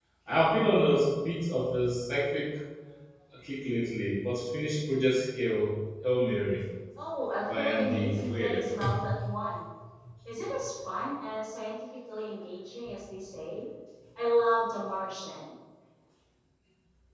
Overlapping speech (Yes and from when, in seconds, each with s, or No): Yes, from 7.4 s